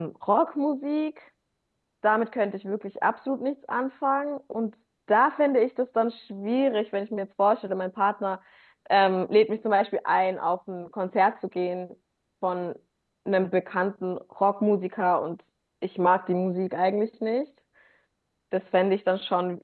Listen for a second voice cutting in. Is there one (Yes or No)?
No